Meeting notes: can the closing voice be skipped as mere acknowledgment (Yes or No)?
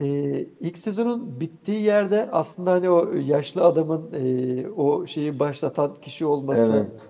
Yes